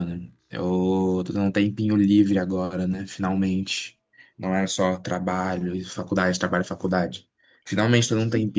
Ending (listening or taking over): listening